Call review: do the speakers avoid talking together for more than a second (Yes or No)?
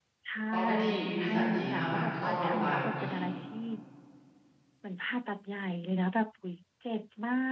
No